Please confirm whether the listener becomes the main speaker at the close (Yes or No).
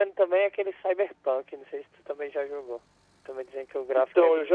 Yes